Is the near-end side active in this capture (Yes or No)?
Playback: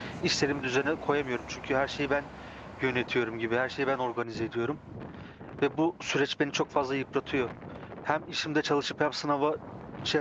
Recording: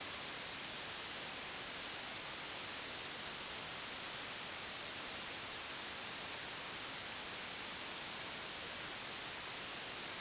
No